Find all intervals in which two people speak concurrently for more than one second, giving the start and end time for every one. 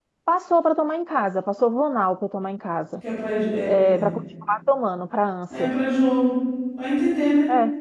none

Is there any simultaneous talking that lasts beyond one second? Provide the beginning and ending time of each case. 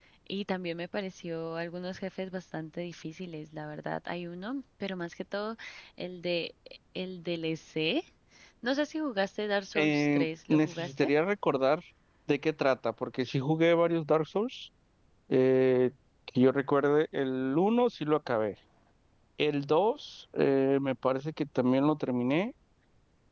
9.8-11.1

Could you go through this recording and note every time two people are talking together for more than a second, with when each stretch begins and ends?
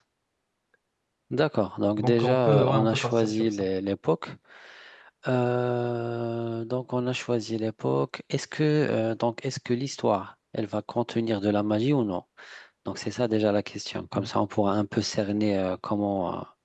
2.0-3.7

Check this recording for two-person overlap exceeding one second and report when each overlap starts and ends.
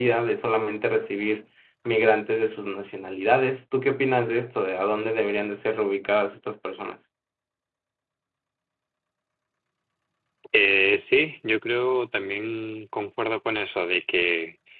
none

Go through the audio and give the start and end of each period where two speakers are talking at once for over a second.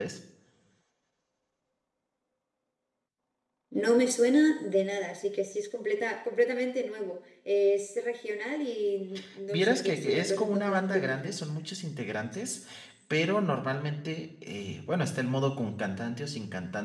9.5-11.4

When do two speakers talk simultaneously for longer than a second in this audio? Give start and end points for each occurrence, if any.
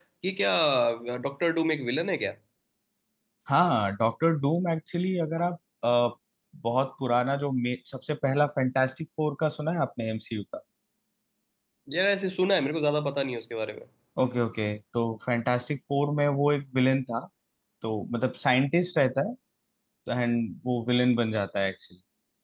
none

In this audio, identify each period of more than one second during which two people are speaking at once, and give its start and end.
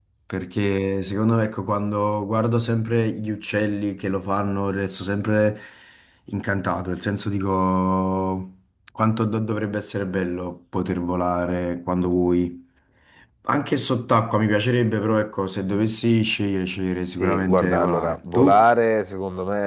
17.2-18.6

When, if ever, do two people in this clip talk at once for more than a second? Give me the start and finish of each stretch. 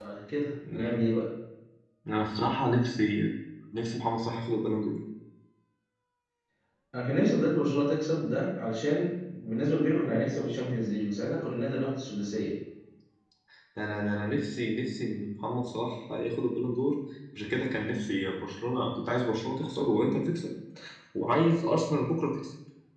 none

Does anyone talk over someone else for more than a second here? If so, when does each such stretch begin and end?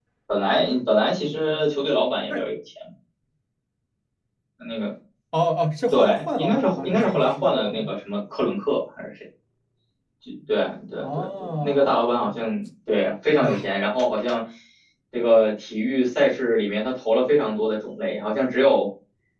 5.9-7.9, 11.0-12.2

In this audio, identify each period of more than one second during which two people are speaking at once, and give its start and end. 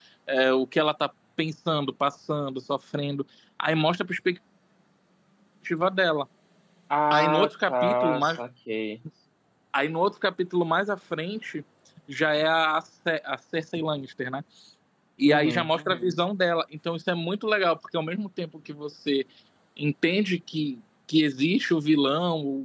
7.1-8.4

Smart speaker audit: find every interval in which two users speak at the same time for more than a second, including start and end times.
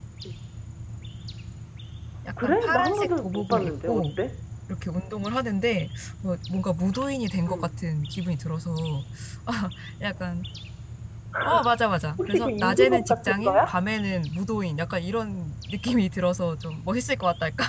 2.4-4.1, 12.2-13.7

